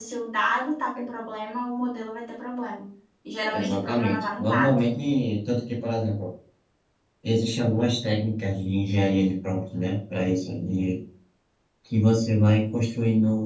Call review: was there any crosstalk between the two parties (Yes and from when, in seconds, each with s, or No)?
Yes, from 3.5 s